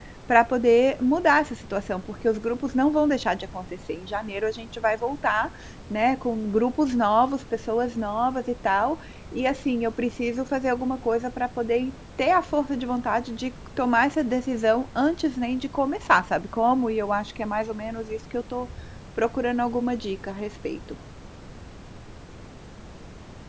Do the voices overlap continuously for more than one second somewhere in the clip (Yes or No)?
No